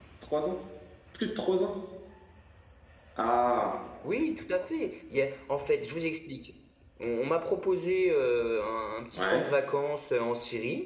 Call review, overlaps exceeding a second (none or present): none